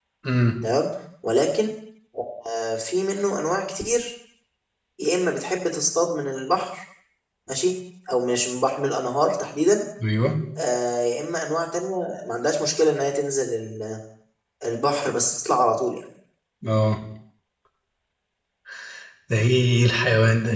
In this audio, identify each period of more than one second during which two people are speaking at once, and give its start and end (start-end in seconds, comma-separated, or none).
none